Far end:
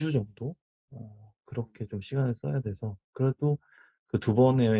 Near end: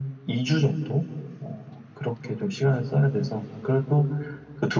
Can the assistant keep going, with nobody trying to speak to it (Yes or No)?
Yes